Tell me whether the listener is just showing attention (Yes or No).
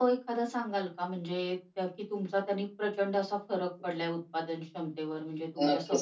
No